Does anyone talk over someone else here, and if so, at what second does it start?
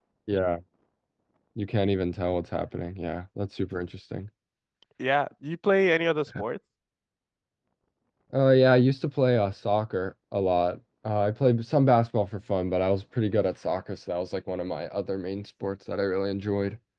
none

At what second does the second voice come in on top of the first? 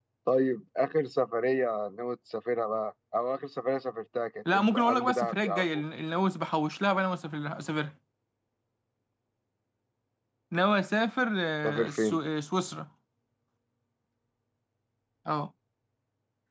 4.5 s

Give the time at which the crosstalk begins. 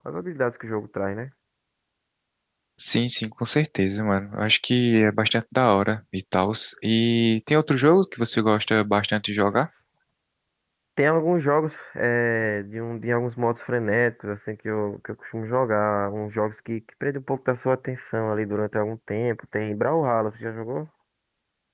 none

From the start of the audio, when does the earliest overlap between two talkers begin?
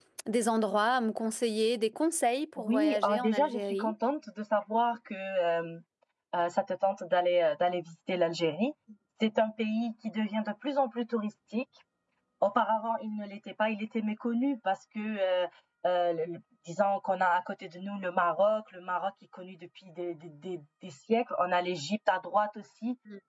2.6 s

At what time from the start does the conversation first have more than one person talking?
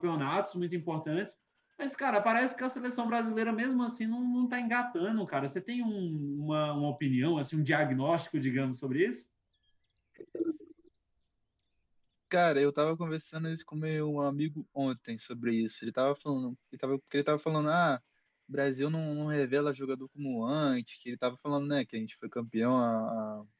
none

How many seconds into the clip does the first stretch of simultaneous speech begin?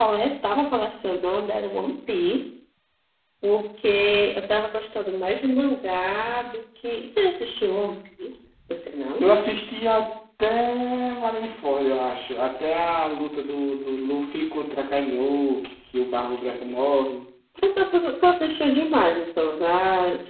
none

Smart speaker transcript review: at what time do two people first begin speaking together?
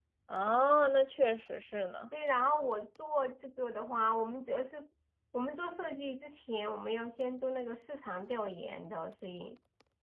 none

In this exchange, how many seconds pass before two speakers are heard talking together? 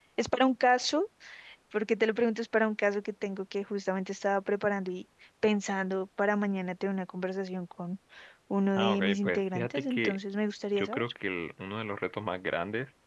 8.8 s

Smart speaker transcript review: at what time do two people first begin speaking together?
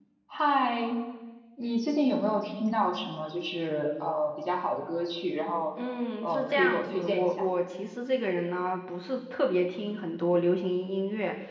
6.2 s

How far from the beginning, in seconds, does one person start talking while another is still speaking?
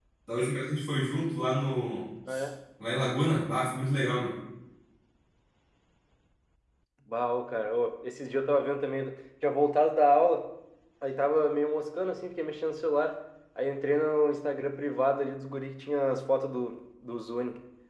none

